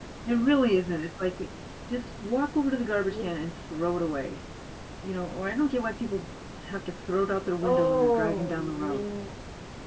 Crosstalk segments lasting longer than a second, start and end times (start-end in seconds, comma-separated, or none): 7.6-9.1